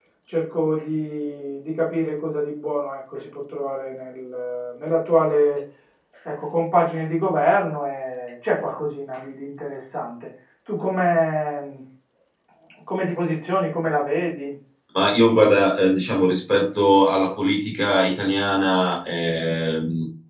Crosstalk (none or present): none